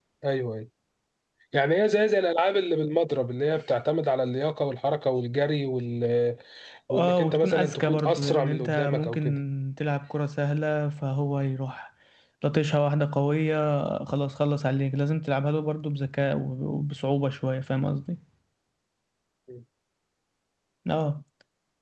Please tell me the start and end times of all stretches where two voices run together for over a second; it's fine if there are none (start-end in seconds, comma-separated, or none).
7.0-9.4